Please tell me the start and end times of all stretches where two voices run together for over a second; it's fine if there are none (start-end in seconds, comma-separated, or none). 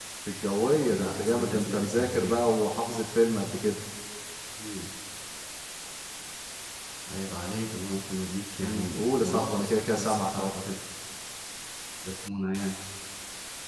0.9-2.5, 8.6-10.5